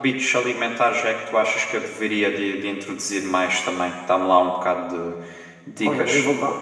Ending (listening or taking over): taking over